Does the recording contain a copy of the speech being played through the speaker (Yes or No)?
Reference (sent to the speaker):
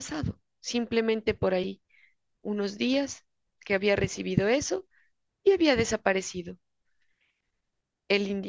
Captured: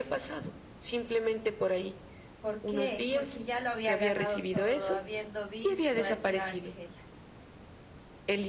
Yes